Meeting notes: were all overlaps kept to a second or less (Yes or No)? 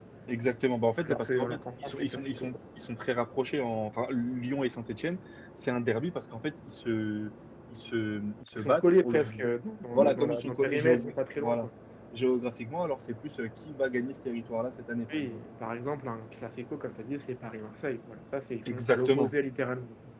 No